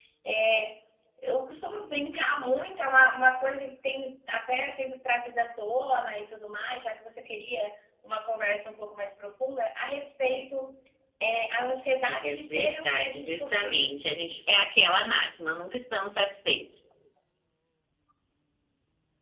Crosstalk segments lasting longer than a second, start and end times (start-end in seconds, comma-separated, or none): 12.0-13.9